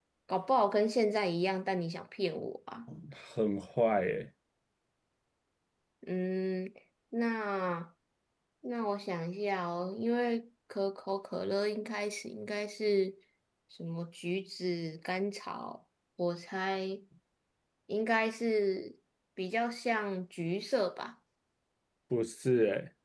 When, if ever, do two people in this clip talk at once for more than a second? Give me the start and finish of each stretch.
none

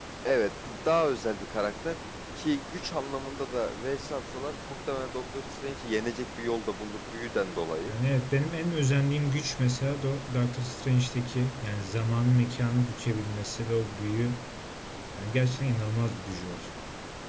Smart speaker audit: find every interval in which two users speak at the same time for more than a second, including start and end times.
none

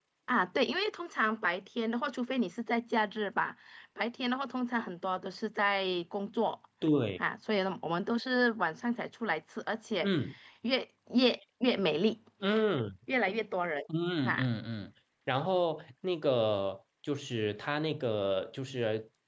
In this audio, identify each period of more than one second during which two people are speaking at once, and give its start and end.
none

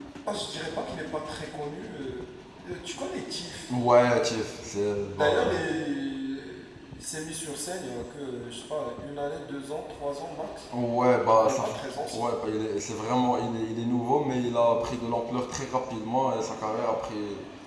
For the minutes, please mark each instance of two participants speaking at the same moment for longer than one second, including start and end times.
none

